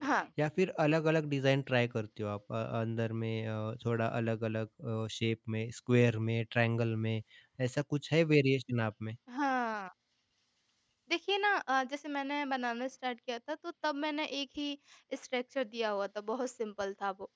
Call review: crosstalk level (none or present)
none